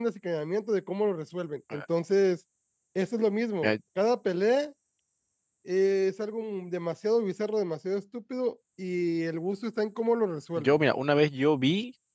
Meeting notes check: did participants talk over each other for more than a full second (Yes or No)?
No